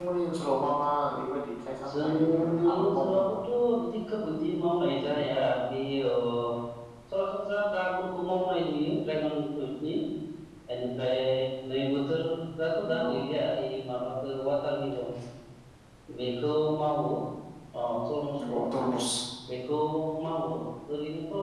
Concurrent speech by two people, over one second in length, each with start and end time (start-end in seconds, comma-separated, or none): 1.9-3.4